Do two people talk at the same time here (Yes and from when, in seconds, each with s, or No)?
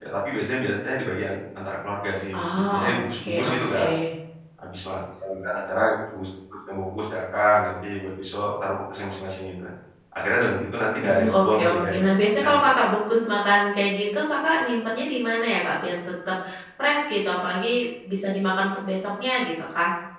Yes, from 2.5 s